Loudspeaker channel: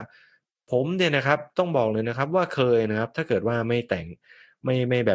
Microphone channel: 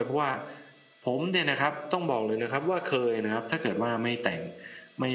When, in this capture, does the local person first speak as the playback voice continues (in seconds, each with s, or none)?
none